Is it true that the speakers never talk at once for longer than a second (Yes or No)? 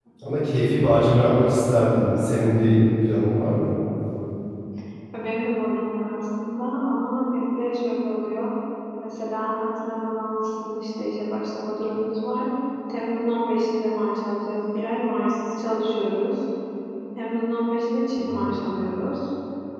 Yes